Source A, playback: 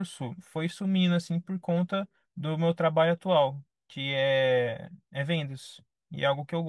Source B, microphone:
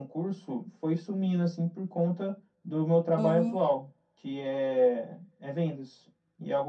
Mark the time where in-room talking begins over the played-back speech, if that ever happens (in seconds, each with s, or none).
3.2 s